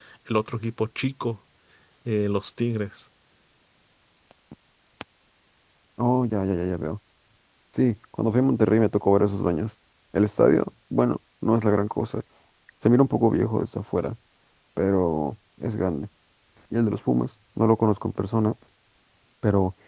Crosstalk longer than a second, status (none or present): none